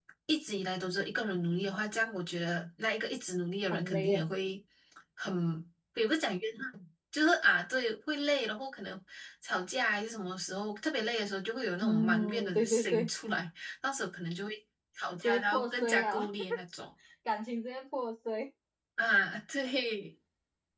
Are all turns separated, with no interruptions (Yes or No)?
No